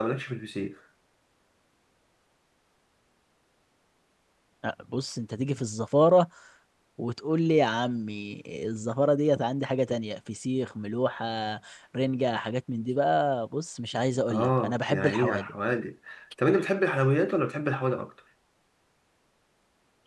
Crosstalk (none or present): present